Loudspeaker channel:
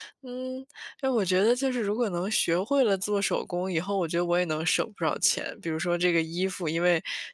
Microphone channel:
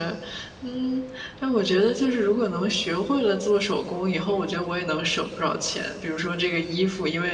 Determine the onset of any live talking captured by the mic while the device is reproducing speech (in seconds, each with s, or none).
none